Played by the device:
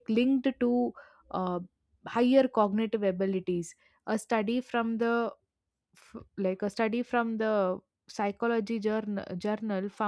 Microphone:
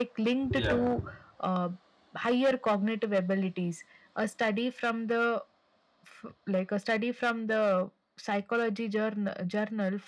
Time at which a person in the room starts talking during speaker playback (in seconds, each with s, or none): 0.6 s